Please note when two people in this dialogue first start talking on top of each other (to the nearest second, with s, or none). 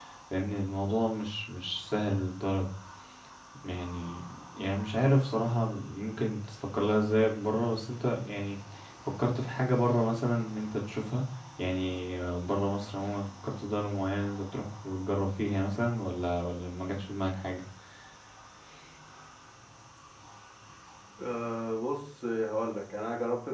none